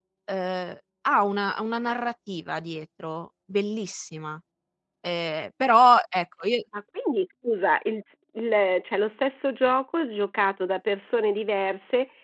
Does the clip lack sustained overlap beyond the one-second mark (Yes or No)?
Yes